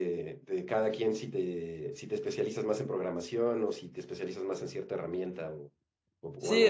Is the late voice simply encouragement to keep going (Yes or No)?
No